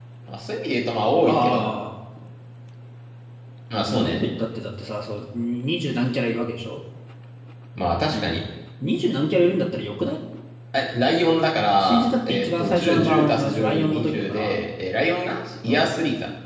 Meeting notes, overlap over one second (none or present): present